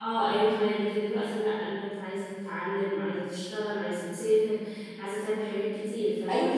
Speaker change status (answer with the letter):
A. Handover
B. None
A